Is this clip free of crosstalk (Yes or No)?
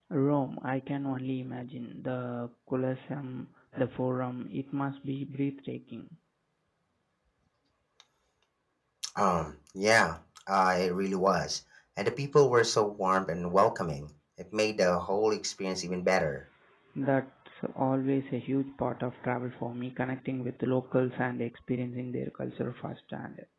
Yes